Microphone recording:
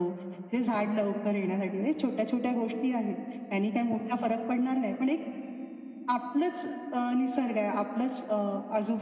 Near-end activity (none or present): none